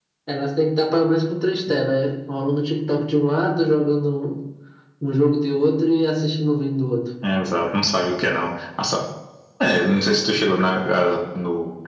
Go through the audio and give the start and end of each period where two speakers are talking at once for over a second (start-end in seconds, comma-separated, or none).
none